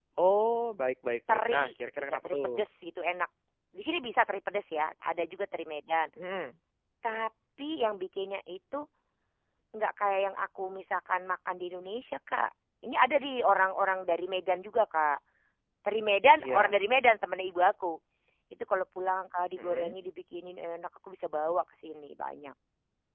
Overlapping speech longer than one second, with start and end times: 1.3-2.5

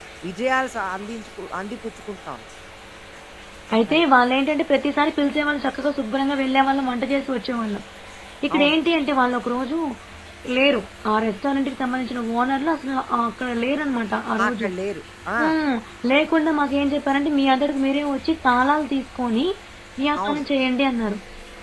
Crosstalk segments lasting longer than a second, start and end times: none

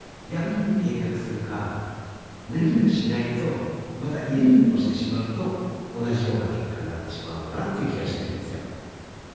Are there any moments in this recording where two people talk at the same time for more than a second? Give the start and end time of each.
none

